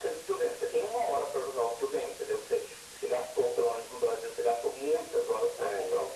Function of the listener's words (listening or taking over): listening